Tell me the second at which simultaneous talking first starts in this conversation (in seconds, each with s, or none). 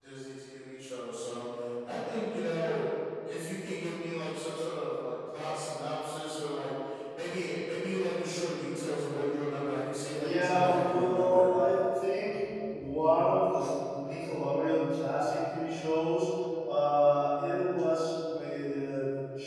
10.1 s